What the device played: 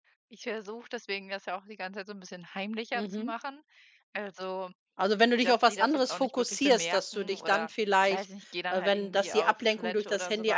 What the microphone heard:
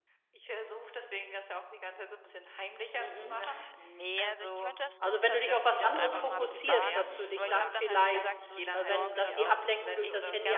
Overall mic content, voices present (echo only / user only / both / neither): both